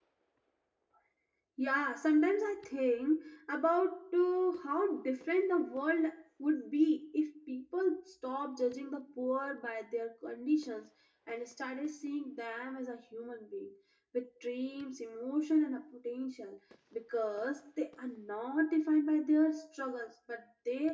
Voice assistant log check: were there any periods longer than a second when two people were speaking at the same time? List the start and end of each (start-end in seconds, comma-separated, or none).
none